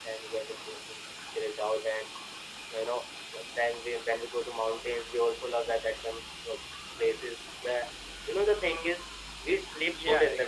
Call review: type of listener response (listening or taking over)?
taking over